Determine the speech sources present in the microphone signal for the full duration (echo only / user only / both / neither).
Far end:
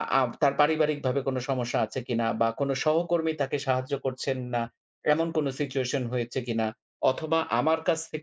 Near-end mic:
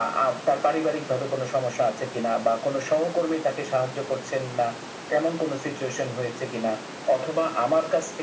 echo only